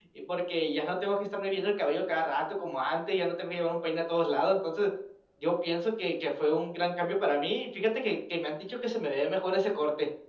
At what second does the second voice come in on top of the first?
none

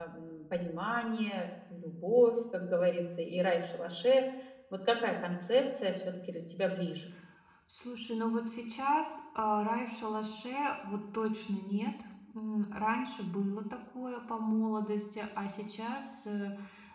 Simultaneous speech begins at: none

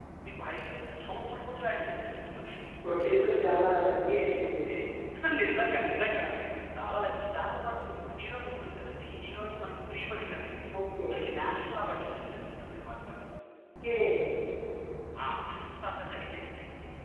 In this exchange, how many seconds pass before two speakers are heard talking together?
none

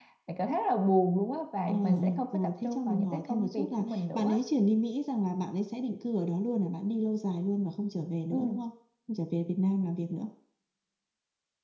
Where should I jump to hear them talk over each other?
2 s

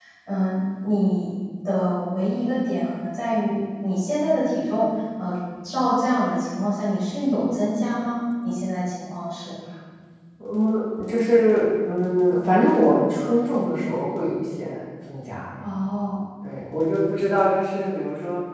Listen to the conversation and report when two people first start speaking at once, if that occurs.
none

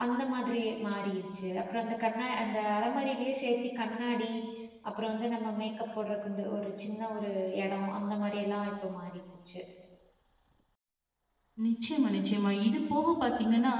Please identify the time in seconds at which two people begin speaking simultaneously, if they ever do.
none

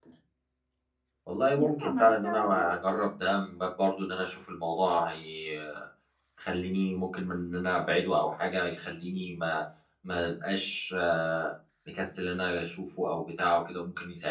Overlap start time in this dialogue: 2 s

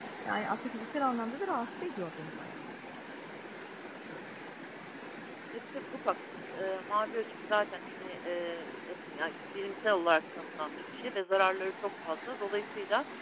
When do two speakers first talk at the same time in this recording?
none

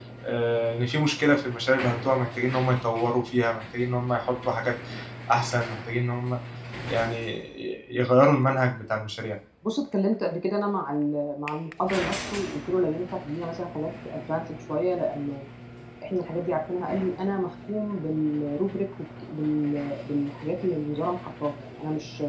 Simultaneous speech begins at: none

